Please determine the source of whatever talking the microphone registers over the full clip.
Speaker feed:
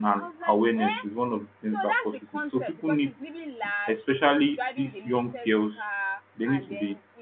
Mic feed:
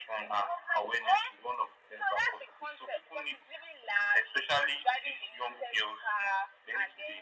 echo only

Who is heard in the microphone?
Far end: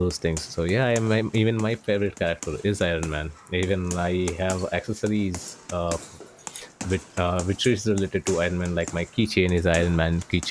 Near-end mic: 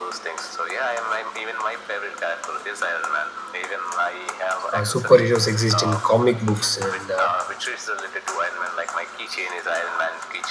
both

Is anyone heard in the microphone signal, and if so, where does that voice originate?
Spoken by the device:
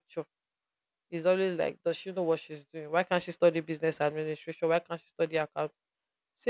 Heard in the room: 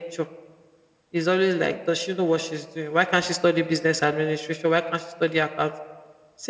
echo only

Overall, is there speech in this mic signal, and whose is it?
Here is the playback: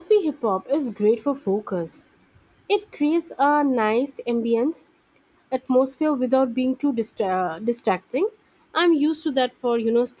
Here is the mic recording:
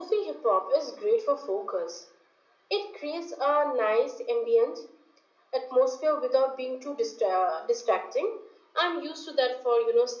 echo only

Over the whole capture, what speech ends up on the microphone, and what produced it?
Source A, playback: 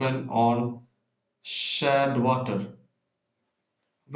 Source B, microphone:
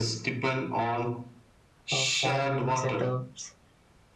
both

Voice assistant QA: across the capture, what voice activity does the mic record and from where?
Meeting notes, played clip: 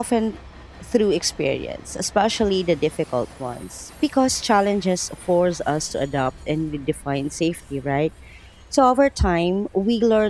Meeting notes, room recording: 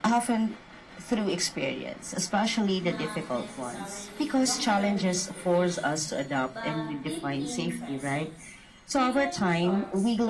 both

